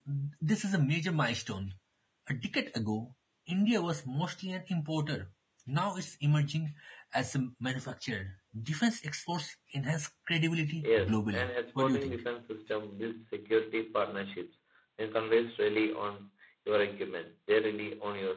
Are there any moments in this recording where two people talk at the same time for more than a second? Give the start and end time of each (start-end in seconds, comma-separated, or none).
10.8-12.2